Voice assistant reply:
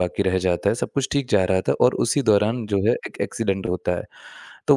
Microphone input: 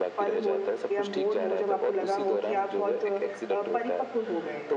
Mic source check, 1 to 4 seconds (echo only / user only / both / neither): both